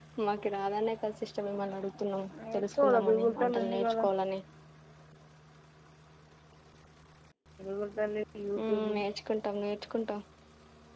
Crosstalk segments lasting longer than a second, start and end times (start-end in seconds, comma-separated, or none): 2.5-4.0